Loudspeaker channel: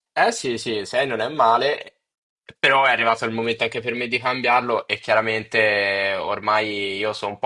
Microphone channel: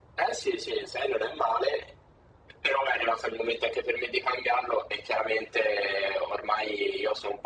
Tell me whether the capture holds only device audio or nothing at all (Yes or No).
Yes